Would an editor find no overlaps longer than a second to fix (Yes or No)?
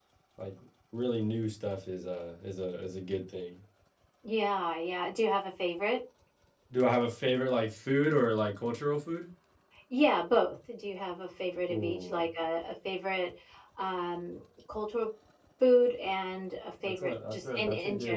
No